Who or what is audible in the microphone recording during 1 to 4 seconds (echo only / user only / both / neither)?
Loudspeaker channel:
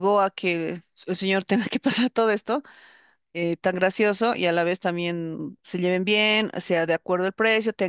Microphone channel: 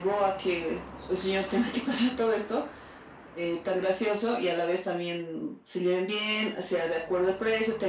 echo only